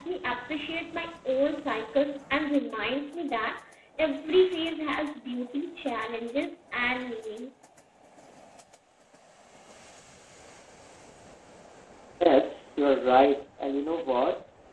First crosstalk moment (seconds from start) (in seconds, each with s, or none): none